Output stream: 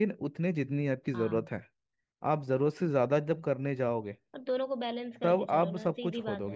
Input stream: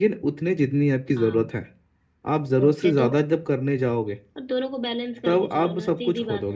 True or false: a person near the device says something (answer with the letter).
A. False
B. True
B